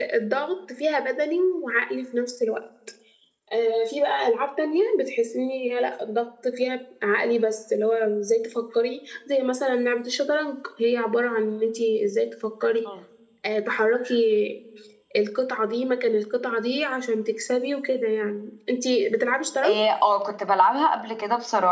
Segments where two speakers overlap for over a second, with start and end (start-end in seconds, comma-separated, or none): none